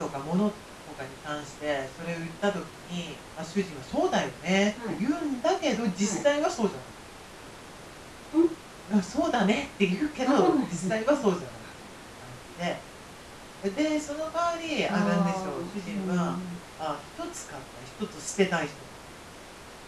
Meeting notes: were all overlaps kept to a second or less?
No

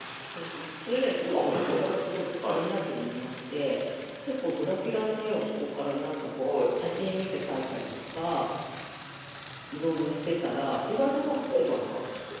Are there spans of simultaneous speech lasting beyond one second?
Yes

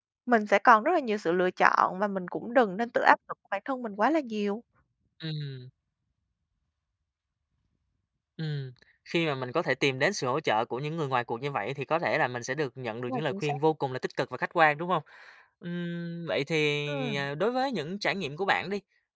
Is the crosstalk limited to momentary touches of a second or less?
Yes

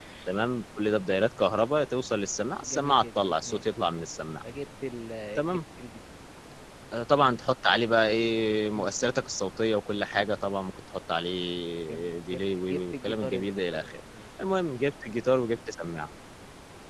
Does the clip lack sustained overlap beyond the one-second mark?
No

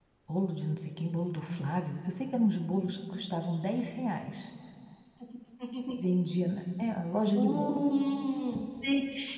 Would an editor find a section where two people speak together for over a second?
No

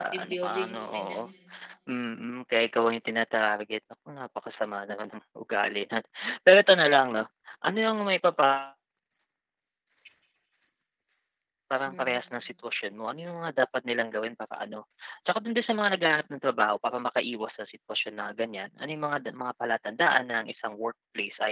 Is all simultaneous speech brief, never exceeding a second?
No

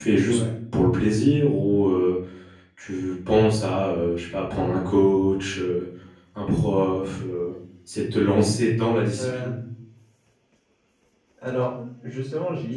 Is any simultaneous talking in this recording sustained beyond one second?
No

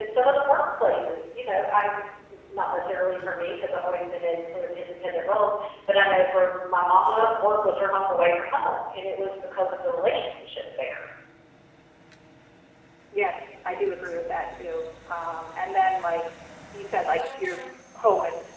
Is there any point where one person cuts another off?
No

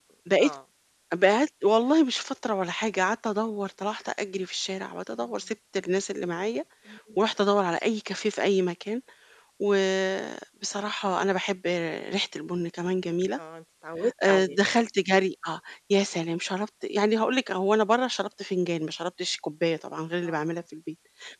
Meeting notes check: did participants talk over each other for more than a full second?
No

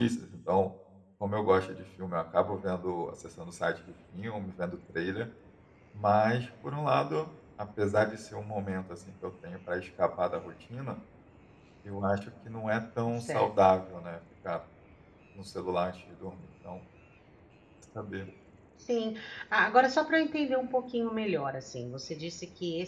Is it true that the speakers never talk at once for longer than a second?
Yes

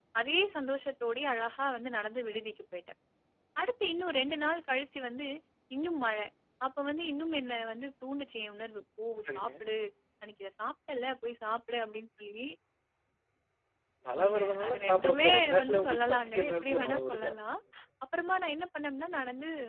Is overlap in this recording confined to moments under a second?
No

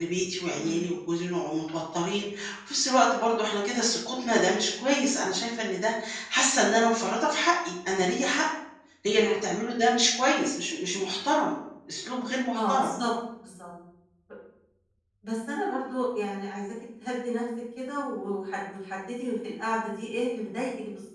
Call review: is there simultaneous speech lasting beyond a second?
No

